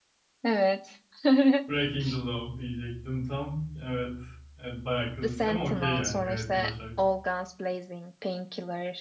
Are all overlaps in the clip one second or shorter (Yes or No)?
No